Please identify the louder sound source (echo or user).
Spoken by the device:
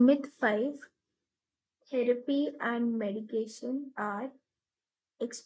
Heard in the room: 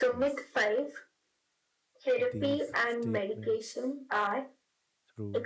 echo